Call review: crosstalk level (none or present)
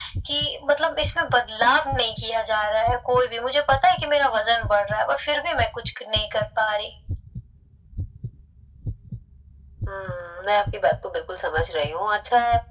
none